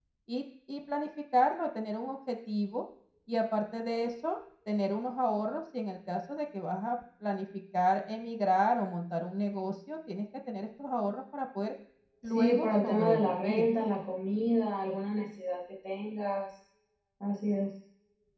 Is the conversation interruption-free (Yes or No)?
No